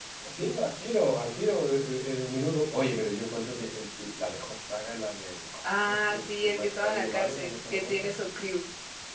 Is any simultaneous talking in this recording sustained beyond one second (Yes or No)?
Yes